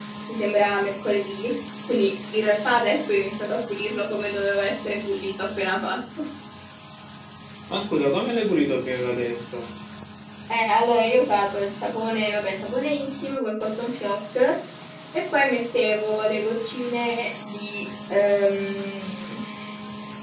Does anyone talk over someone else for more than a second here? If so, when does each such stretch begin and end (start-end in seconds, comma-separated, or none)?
none